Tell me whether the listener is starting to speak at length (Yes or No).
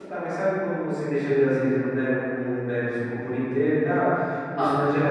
No